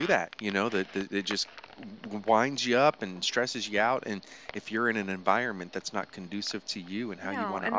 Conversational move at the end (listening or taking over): taking over